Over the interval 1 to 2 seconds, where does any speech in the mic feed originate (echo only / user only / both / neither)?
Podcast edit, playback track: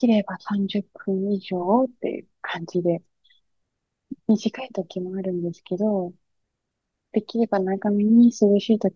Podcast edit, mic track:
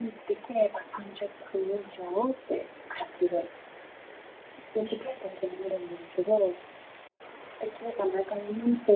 echo only